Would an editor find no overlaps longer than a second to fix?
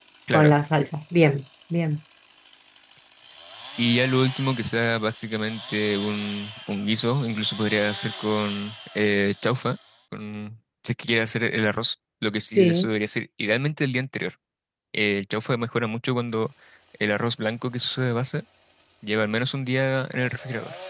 Yes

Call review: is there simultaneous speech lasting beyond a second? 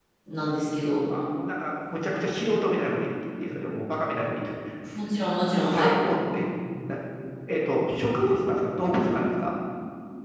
No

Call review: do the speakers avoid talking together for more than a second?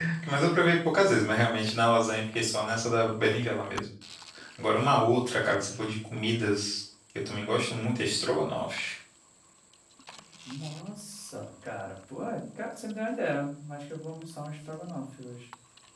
Yes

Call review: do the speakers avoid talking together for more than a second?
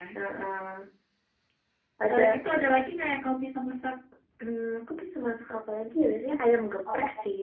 Yes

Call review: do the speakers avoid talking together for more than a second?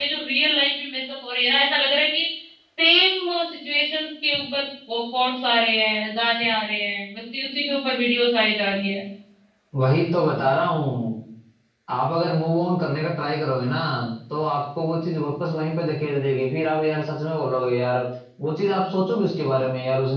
Yes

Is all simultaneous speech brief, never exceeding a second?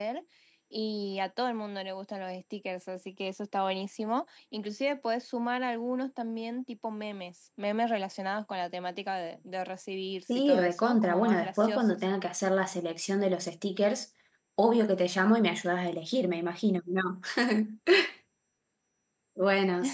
No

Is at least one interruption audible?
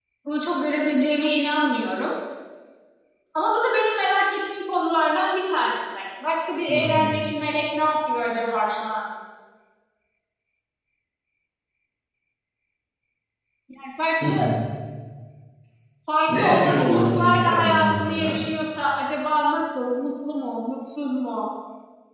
Yes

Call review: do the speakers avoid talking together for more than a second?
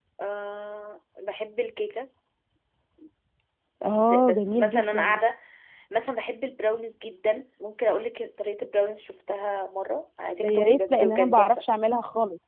No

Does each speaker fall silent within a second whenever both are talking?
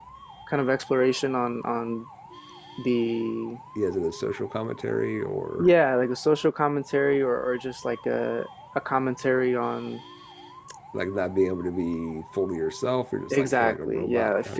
No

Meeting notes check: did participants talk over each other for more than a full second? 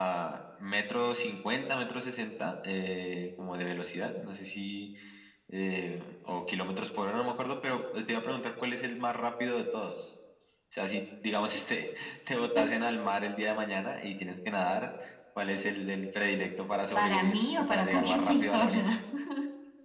Yes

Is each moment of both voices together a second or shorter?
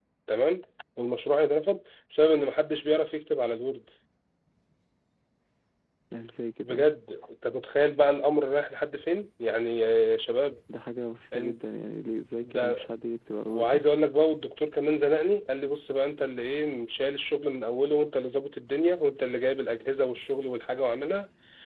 Yes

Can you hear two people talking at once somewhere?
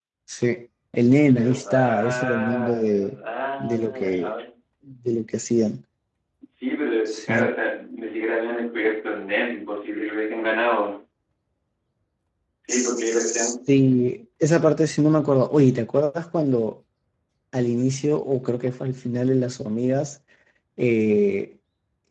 Yes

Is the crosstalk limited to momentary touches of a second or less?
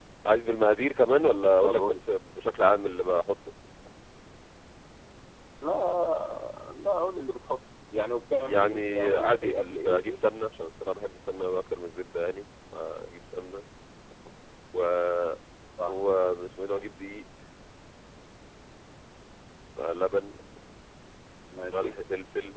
No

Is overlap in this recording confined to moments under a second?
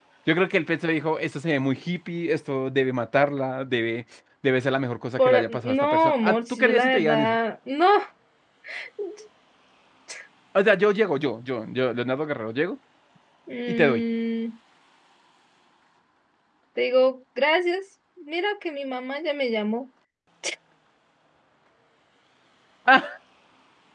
No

